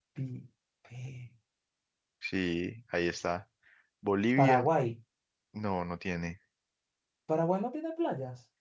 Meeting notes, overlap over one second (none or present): none